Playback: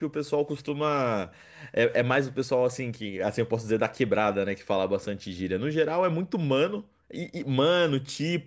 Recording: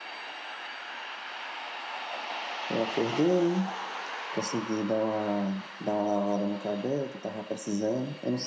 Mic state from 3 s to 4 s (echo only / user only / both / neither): user only